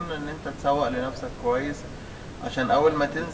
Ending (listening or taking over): listening